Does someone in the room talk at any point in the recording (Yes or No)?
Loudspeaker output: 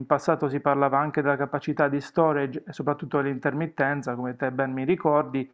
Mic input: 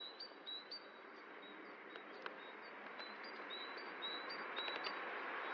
No